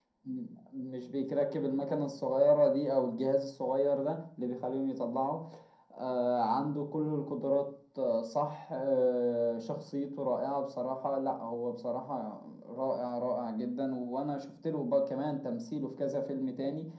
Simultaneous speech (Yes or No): No